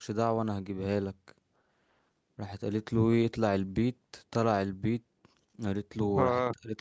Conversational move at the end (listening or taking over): listening